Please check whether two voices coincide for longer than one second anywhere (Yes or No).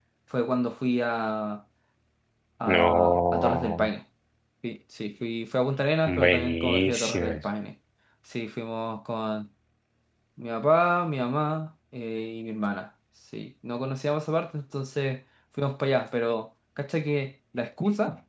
Yes